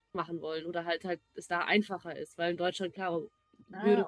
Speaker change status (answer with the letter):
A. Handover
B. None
A